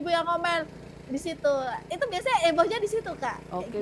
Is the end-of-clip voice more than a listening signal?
Yes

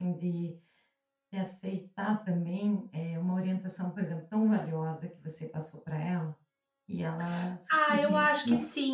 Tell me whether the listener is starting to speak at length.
Yes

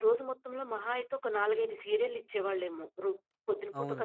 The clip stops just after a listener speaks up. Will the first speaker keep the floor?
No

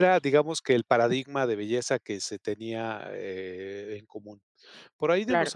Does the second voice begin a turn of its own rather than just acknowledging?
No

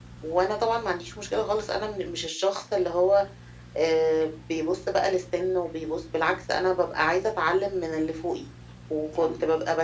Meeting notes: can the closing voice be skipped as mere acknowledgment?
Yes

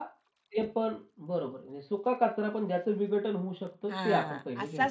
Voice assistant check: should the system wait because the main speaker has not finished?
No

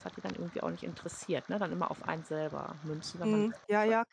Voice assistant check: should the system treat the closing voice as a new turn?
Yes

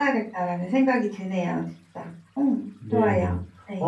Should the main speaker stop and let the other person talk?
Yes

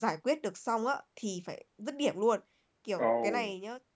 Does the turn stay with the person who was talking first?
Yes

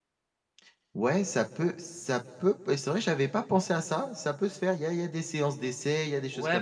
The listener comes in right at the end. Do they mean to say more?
Yes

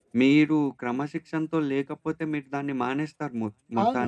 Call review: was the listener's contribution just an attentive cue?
No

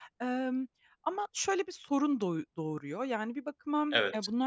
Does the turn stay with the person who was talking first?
Yes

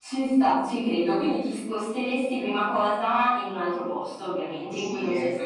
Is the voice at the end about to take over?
Yes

